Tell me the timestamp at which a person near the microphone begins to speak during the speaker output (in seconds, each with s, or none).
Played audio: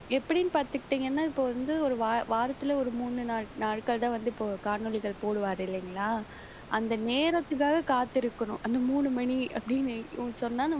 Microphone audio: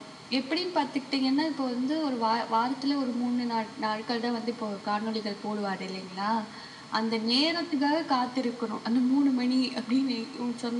none